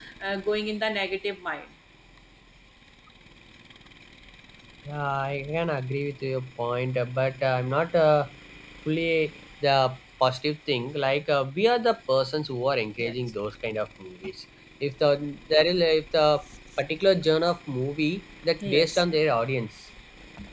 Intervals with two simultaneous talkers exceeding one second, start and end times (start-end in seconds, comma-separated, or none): none